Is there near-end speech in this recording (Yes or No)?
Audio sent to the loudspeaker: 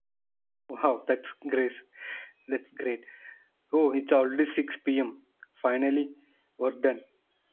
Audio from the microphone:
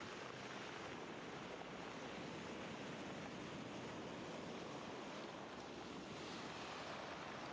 No